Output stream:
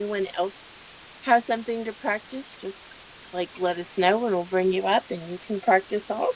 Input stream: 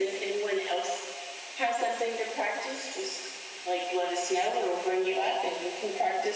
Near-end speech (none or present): none